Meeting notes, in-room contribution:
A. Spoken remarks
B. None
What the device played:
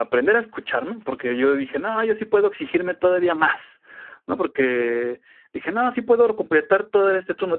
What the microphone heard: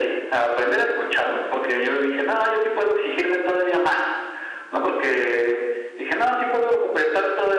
B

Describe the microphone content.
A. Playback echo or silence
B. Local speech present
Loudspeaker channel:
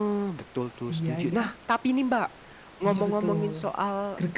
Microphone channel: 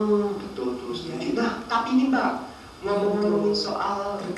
A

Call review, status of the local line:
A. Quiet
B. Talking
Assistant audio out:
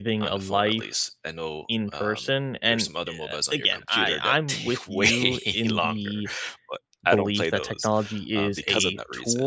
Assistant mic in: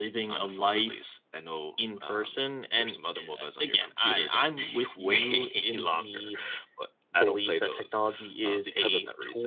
A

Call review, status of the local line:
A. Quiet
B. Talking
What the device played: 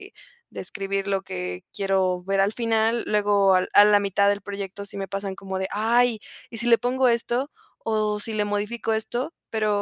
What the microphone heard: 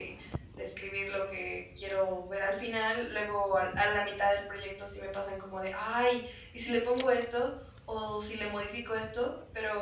A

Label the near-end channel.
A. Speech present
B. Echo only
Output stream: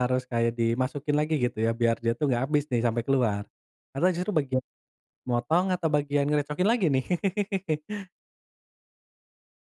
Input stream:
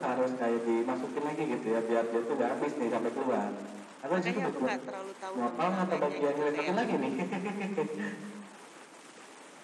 A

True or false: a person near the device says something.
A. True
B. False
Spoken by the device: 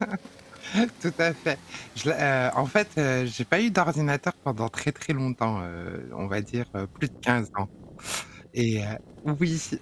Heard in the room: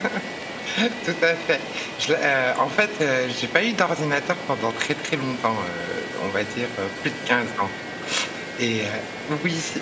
B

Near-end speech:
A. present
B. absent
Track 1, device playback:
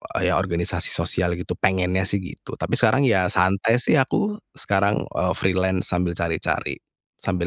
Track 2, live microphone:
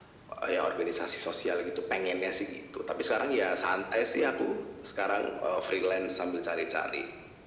B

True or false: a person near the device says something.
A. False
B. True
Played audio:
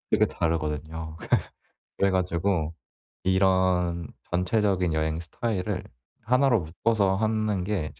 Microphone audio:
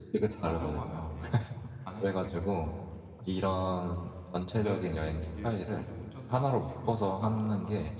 B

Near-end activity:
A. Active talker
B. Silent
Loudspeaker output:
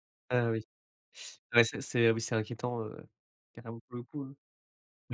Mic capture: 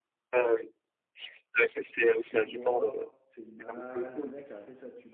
A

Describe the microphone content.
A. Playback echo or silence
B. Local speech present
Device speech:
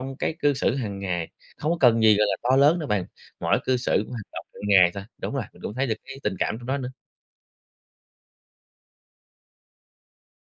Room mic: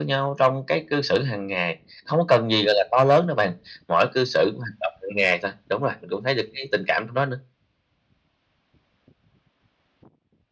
A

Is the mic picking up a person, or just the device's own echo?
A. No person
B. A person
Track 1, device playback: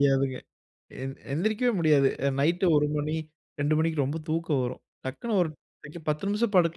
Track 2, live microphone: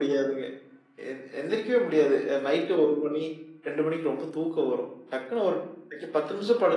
A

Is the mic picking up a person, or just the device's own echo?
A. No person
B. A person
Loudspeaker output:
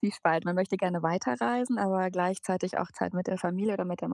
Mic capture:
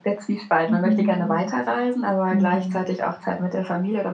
B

